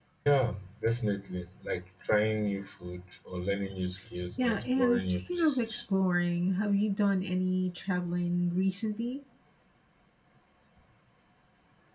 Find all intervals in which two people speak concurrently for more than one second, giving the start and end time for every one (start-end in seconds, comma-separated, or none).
4.4-5.8